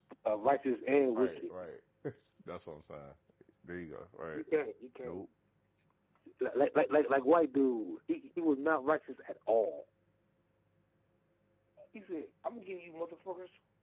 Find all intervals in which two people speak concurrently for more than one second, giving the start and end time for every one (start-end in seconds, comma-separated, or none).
none